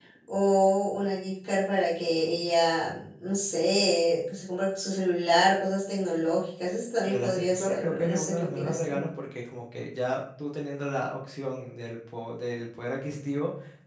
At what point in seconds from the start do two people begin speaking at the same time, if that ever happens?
7.1 s

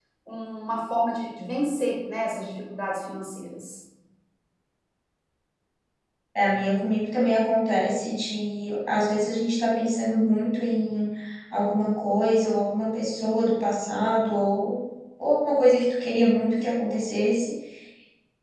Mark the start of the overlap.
none

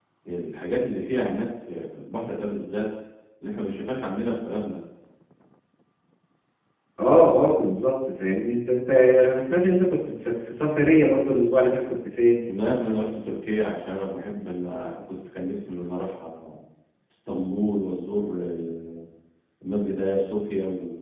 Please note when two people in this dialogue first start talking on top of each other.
none

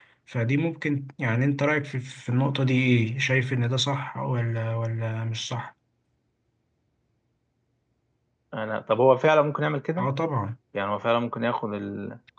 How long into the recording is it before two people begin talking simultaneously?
none

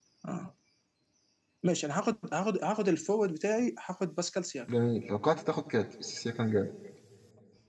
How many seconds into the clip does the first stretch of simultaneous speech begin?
none

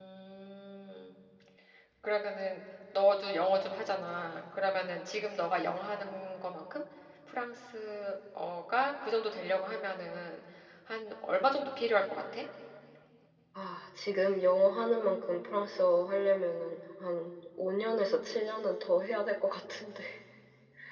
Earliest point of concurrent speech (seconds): none

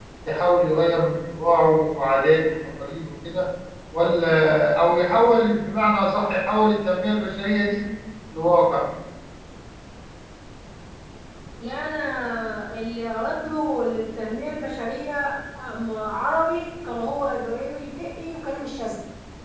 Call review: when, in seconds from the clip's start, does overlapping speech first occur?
none

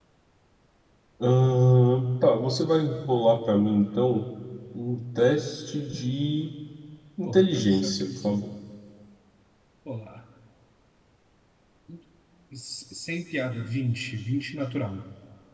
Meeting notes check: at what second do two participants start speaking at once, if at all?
7.2 s

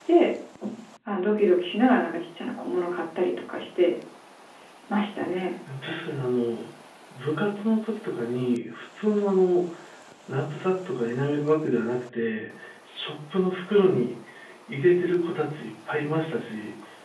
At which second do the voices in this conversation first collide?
none

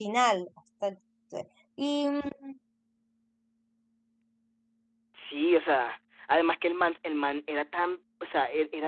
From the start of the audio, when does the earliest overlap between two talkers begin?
none

